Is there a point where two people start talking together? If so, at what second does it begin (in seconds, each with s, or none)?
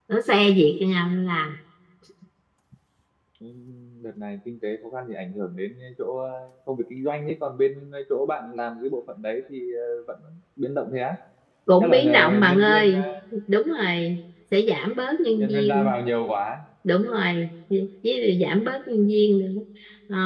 11.8 s